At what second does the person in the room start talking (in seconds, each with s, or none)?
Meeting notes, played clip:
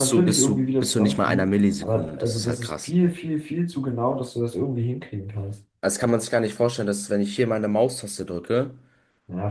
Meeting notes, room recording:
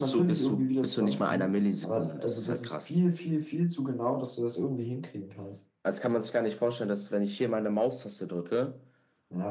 none